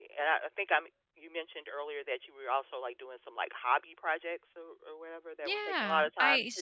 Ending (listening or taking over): taking over